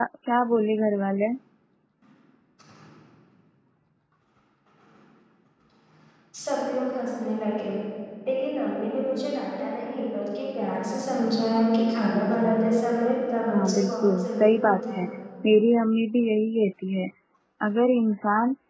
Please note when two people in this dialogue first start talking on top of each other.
13.5 s

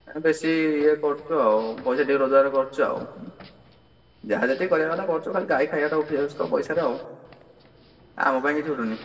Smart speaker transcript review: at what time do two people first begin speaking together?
none

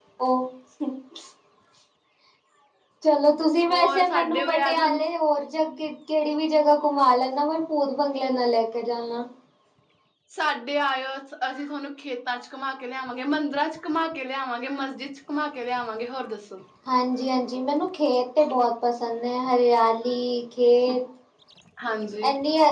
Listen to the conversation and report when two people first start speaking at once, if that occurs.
3.7 s

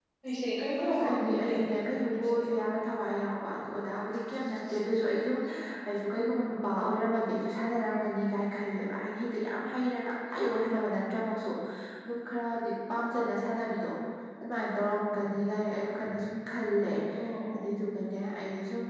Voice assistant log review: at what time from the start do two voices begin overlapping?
0.8 s

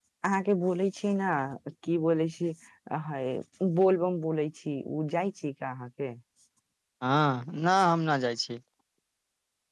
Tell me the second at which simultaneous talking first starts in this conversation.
none

